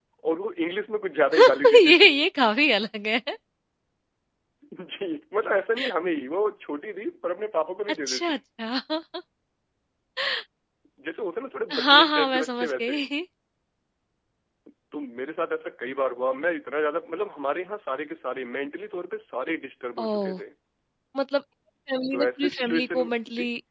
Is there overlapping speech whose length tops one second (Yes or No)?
Yes